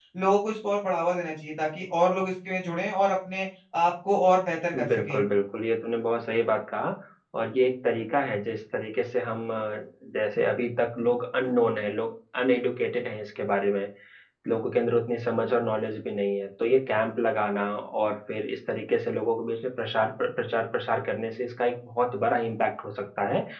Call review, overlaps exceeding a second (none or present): none